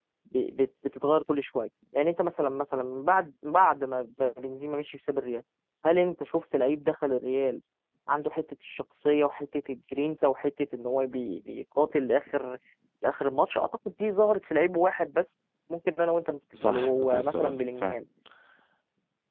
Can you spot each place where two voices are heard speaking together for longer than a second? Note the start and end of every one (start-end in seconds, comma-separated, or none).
16.6-18.0